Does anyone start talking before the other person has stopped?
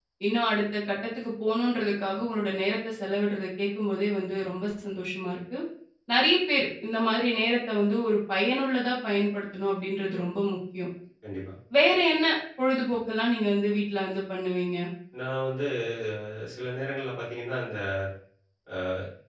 No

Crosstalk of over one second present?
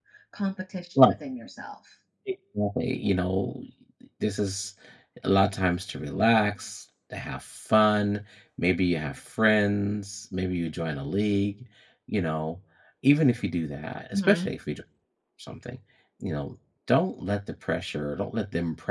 No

